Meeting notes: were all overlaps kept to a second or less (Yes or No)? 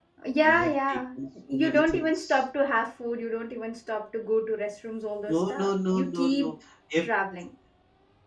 No